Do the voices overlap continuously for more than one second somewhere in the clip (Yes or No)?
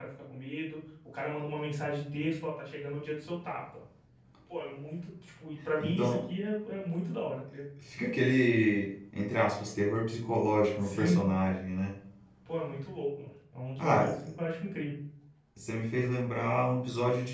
No